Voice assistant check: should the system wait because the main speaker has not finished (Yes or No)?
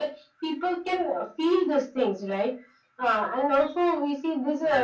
Yes